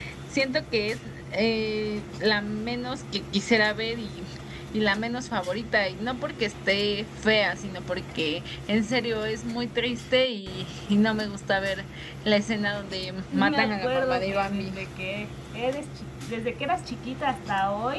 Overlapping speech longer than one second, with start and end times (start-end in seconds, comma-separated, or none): 13.3-14.8